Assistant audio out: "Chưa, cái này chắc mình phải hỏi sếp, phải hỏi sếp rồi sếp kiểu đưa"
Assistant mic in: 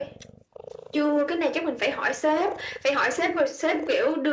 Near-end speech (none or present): none